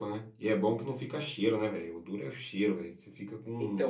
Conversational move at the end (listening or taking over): taking over